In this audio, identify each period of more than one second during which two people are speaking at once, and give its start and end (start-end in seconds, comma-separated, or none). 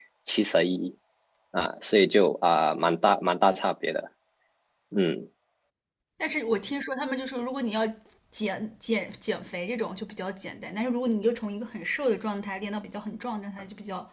none